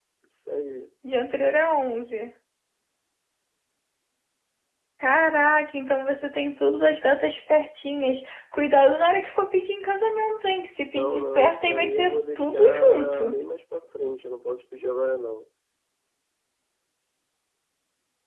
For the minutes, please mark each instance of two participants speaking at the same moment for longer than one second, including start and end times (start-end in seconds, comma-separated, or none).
10.9-13.4